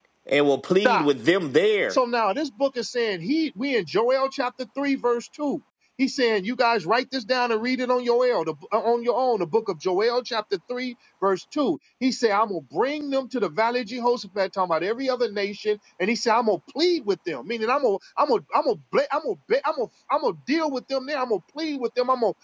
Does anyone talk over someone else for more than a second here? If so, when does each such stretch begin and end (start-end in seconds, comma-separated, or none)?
none